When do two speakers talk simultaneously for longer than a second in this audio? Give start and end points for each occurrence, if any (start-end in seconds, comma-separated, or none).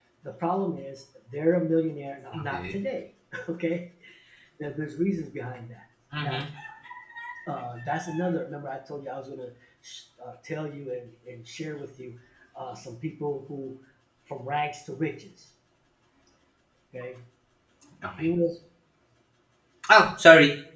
none